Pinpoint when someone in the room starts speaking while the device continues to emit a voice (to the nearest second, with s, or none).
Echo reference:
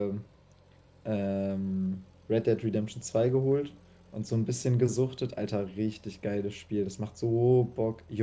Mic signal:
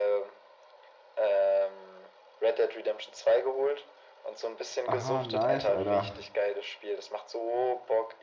5 s